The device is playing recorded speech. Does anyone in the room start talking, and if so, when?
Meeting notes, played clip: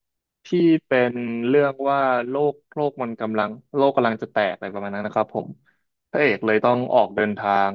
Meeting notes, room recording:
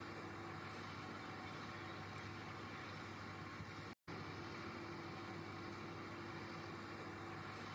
none

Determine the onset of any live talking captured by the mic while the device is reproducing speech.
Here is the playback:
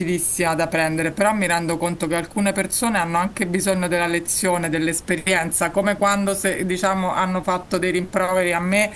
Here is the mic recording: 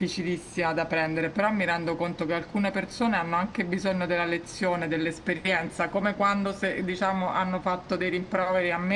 none

